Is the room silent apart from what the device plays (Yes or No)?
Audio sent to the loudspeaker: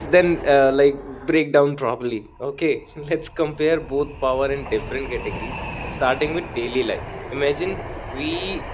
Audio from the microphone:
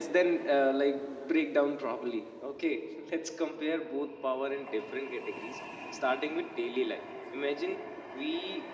Yes